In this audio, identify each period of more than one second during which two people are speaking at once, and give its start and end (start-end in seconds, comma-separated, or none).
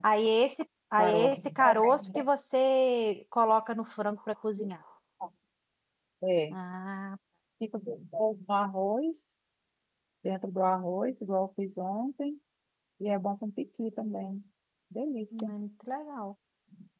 1.0-2.2